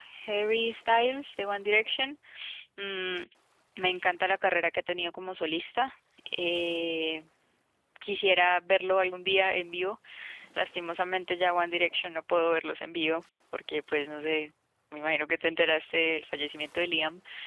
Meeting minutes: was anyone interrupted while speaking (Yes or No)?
No